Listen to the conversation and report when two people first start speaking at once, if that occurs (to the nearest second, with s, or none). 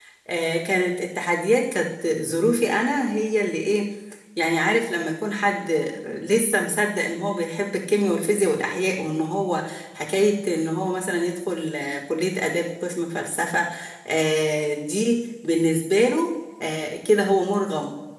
none